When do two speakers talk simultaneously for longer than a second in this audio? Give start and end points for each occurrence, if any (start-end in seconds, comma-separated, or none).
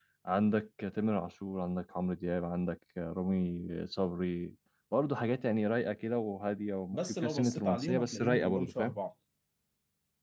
6.9-8.9